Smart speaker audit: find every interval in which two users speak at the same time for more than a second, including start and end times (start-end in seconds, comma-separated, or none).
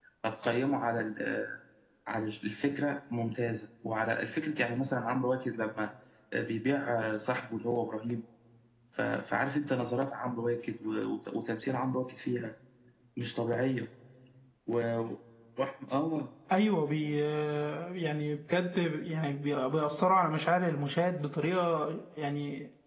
none